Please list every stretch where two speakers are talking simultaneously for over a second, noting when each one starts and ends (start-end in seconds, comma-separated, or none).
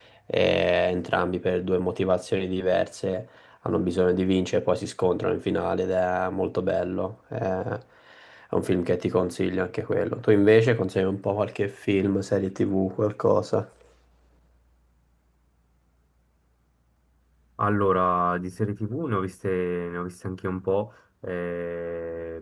none